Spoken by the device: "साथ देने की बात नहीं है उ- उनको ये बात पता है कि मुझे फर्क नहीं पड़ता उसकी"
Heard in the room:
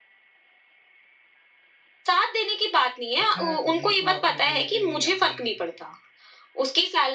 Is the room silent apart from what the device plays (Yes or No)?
No